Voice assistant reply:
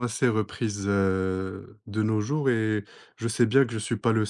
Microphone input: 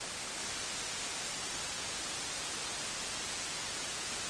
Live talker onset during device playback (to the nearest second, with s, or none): none